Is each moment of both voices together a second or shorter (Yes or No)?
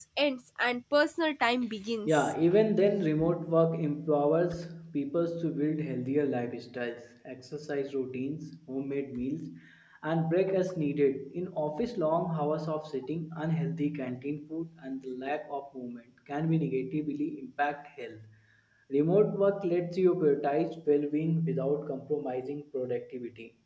Yes